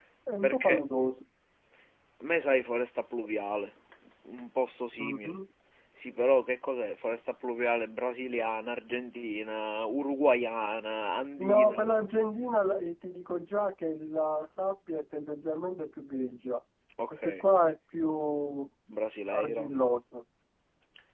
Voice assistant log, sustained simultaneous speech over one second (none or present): none